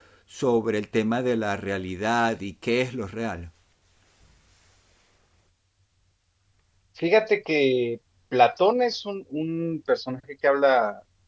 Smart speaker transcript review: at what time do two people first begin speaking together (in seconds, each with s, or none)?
none